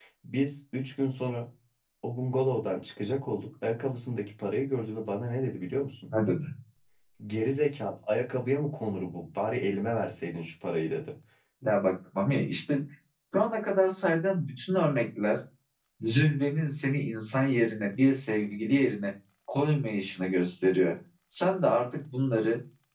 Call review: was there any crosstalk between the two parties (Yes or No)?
No